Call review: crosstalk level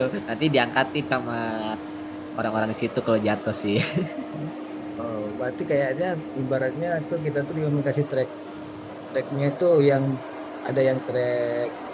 none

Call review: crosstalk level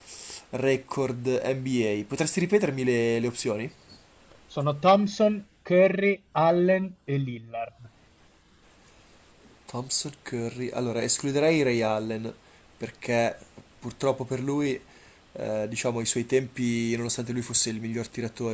none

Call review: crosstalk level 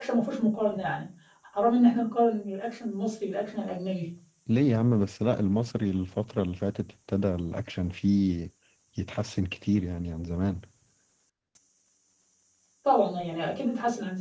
none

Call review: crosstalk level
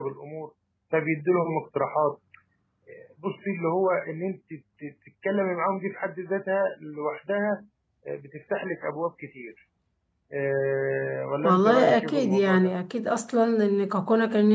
present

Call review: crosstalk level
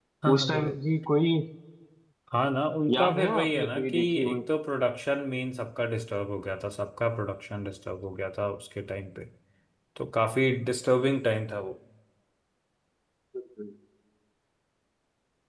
present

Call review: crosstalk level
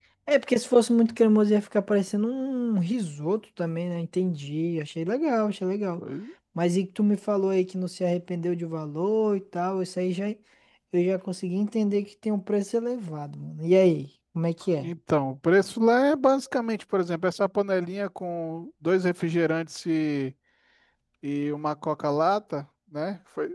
none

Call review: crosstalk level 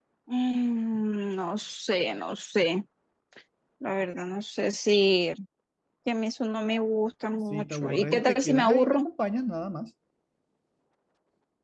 present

